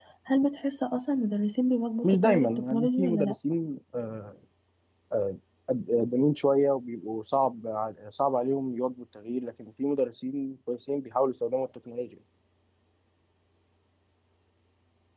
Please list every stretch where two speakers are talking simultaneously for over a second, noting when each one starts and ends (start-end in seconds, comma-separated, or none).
2.0-3.3